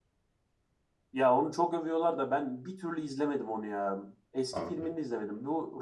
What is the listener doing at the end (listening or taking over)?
listening